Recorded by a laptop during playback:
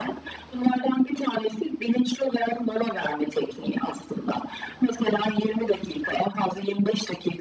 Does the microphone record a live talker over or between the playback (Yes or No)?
No